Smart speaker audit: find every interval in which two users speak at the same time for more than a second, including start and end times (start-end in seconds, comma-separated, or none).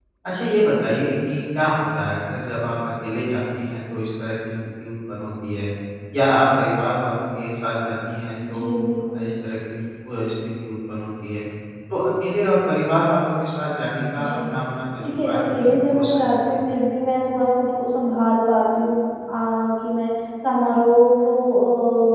15.0-16.6